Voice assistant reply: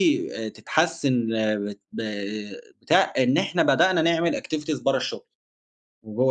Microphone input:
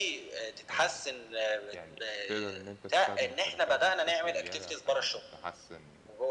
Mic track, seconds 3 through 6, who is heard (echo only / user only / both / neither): both